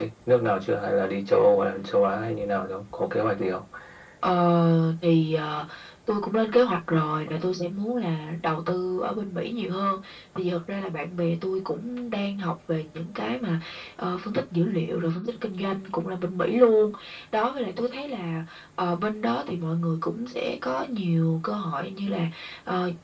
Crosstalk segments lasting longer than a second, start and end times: none

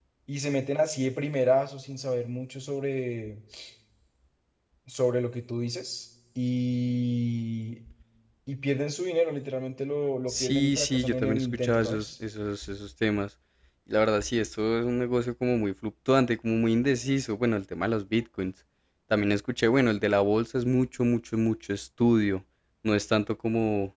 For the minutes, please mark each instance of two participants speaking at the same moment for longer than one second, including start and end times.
10.3-12.1

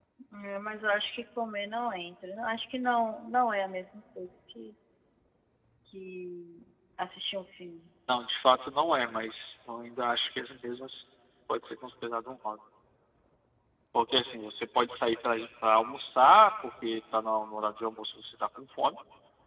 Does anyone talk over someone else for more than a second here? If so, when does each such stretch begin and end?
none

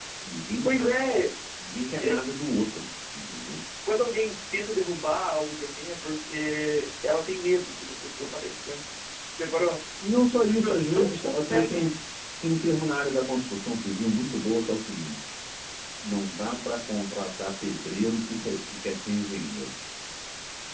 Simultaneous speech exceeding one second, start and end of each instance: 10.5-11.8

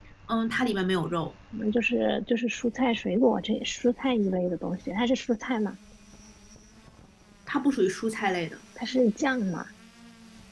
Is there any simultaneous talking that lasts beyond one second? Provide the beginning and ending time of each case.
none

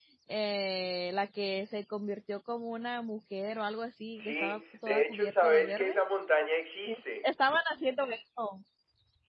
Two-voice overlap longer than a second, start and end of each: 4.2-6.0

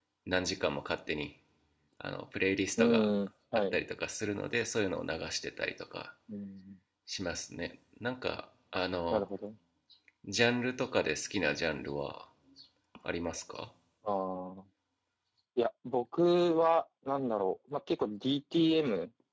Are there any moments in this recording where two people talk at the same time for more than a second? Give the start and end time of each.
none

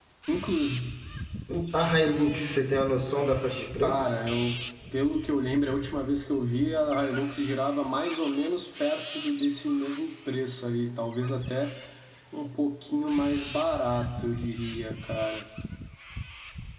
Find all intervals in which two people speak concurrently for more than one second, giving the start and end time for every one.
none

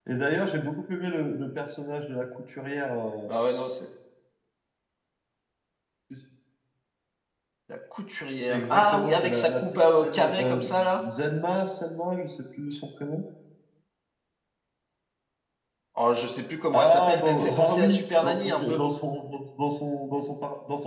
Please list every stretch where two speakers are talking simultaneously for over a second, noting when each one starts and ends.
8.5-11.0, 16.7-18.8

